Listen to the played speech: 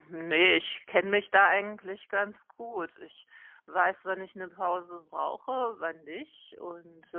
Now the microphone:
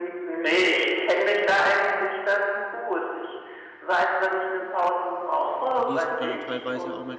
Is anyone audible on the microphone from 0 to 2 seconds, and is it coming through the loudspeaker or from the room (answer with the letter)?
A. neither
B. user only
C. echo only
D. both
C